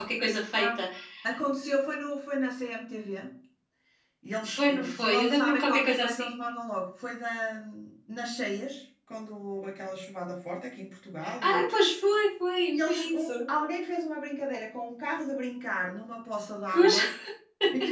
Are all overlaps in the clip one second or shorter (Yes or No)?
No